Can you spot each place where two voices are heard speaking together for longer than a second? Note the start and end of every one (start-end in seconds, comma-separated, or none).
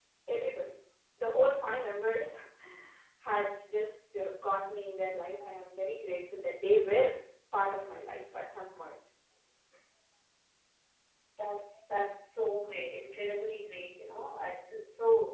none